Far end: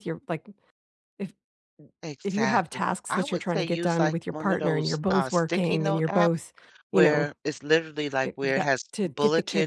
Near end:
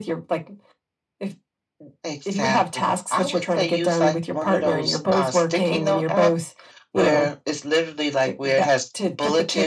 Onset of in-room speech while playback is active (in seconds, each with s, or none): none